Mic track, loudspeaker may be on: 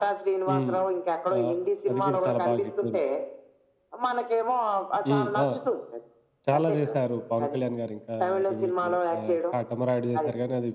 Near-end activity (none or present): present